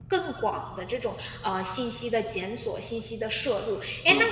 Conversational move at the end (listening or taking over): listening